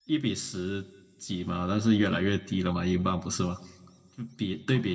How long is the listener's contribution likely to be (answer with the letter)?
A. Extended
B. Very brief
A